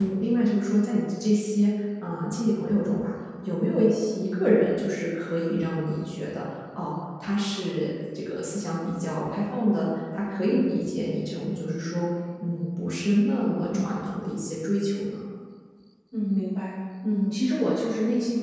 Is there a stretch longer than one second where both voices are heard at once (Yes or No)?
No